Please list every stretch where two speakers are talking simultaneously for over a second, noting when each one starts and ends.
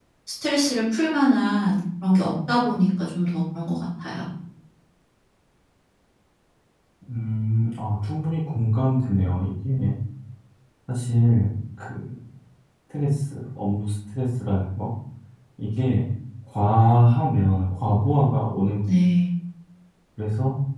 none

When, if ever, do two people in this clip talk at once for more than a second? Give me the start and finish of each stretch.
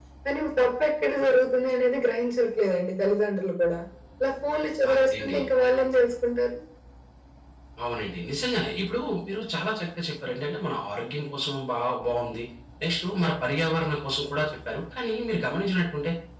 none

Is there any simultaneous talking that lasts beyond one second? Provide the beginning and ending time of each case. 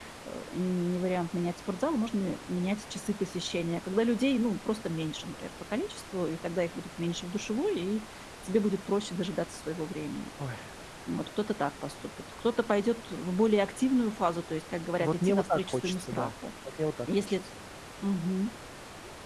15.0-16.3

